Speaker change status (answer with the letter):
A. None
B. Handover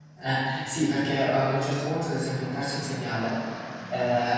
A